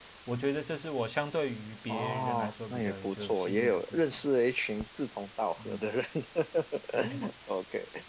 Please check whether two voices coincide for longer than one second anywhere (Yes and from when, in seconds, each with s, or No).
Yes, from 1.9 s